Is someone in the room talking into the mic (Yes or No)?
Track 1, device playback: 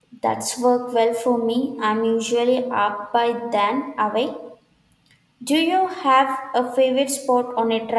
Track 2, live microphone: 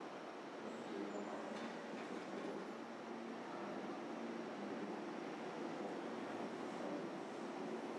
No